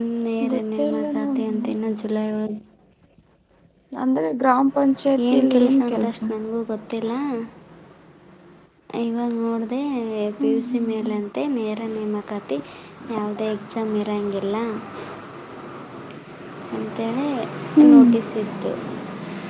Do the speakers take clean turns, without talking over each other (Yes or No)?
No